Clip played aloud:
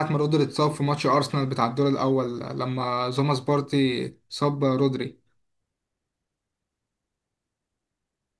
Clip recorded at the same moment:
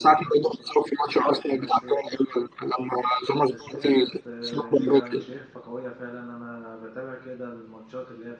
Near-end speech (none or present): present